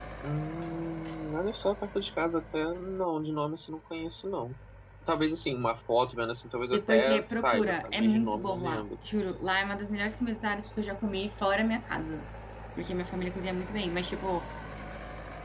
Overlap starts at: 6.7 s

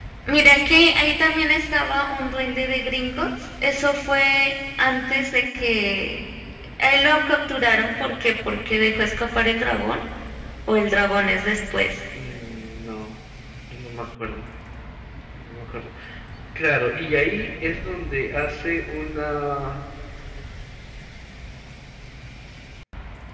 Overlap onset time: none

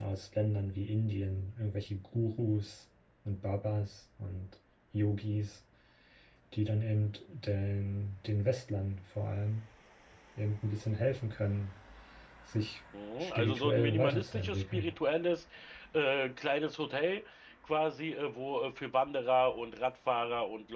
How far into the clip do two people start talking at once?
13.2 s

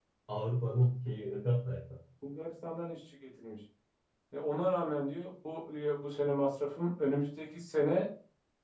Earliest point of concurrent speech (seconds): none

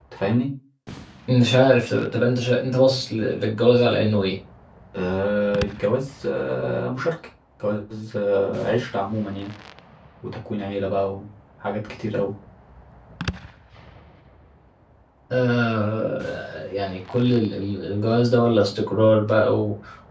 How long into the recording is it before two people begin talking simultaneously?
none

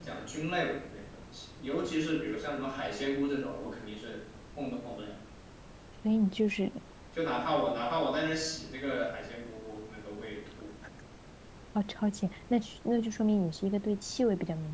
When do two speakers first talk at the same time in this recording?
none

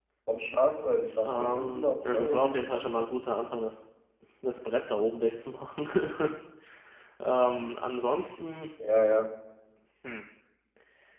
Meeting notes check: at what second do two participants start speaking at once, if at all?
1.2 s

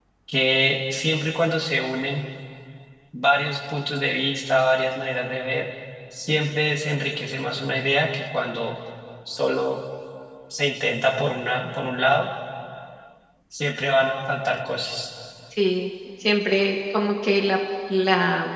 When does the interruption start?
none

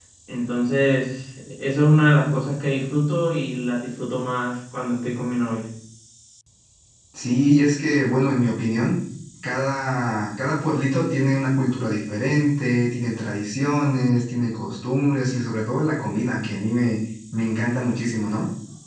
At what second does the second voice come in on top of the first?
none

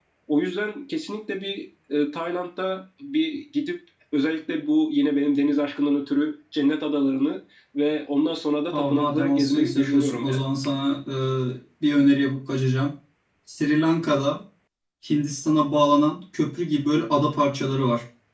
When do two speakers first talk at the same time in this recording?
8.7 s

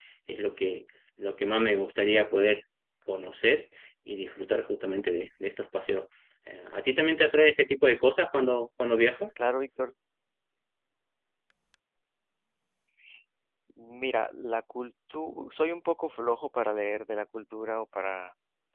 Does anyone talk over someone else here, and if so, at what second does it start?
none

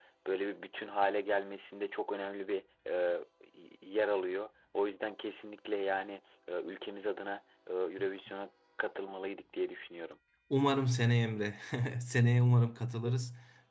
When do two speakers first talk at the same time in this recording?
none

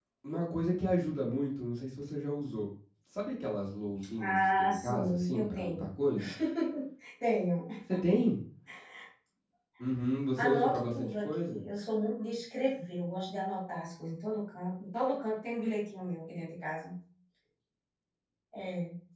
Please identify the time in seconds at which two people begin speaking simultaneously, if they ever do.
4.2 s

